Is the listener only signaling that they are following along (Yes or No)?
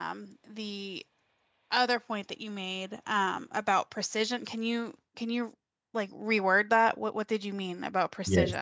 No